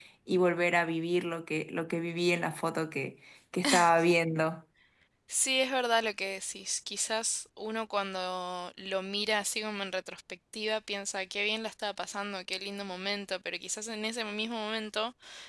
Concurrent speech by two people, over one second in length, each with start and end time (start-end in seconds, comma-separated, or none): none